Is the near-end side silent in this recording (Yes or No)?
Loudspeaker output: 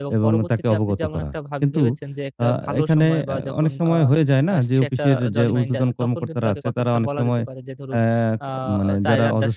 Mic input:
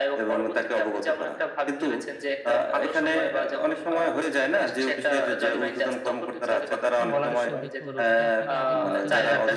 No